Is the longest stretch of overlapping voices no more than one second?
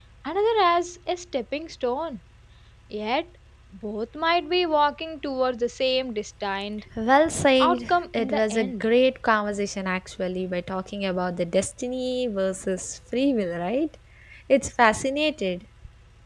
No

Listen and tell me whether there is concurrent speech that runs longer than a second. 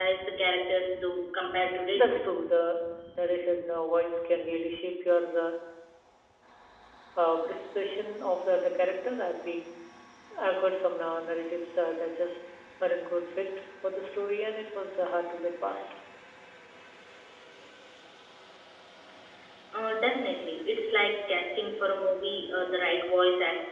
No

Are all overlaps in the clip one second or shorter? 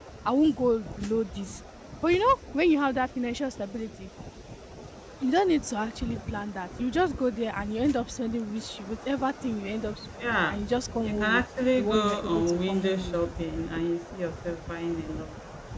No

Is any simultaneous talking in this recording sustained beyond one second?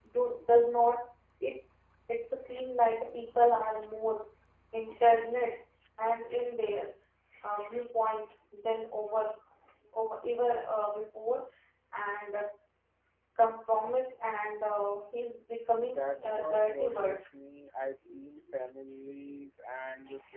Yes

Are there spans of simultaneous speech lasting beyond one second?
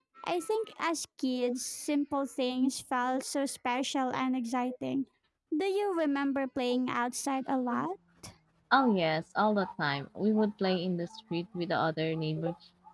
No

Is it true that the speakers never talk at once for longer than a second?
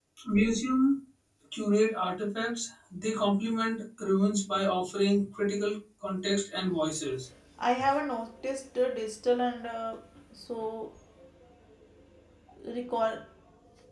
Yes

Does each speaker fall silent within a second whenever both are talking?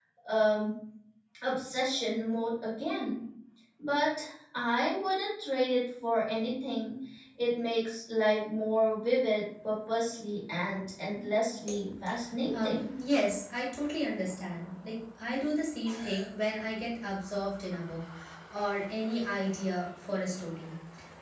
Yes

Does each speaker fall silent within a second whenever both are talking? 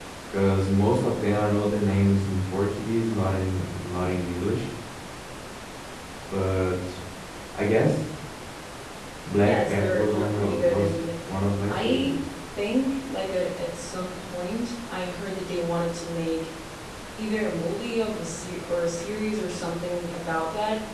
No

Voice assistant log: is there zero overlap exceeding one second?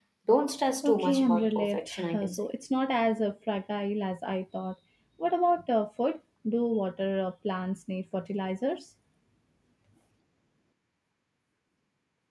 No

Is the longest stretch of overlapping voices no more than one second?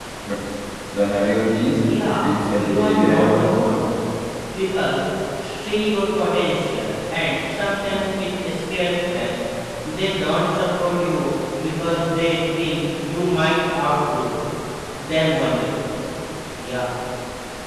No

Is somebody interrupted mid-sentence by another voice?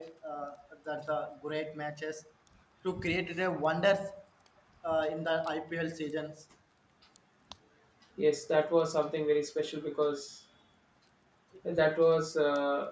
No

